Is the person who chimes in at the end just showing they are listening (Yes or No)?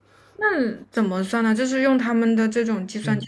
No